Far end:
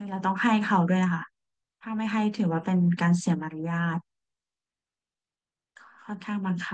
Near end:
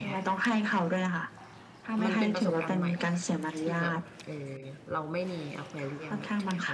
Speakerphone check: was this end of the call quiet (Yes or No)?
No